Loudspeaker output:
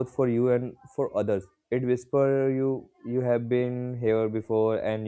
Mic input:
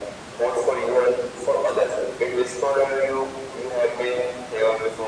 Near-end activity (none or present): none